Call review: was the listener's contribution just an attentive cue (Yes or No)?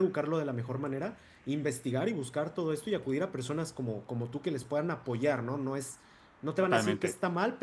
Yes